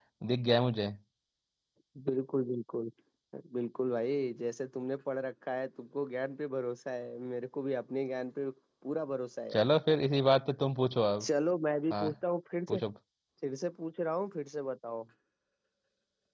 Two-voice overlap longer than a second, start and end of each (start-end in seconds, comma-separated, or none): none